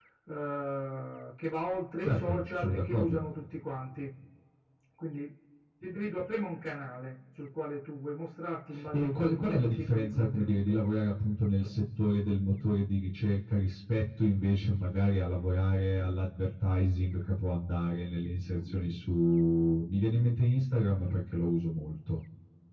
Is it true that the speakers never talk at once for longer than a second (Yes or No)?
No